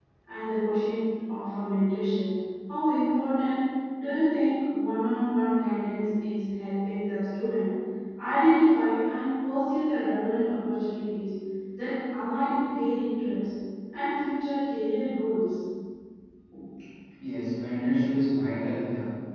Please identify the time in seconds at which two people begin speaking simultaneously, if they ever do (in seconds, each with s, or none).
none